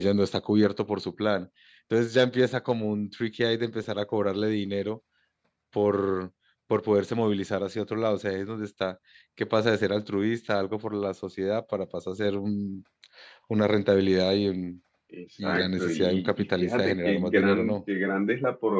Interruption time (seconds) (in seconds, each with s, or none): 15.4 s